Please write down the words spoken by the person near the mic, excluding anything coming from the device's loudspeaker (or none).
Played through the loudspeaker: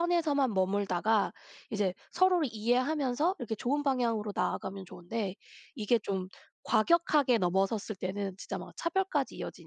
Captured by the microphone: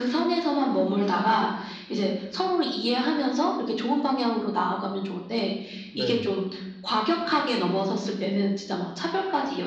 네.